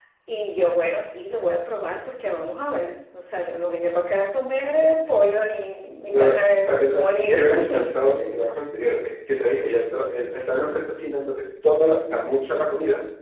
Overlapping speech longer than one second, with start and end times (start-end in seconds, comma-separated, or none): 6.1-7.9